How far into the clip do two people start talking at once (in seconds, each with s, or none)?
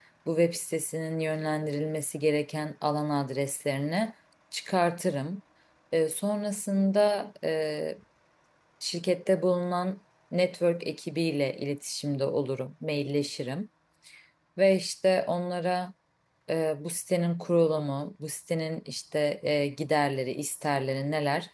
none